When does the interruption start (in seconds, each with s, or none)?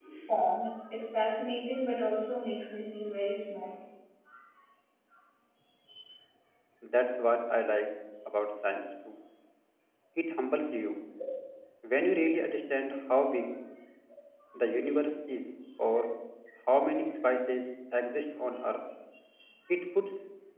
none